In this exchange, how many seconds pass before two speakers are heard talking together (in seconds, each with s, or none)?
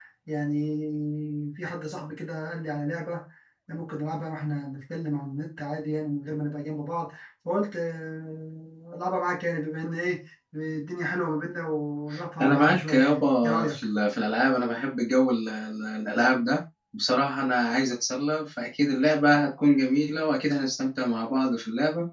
12.4 s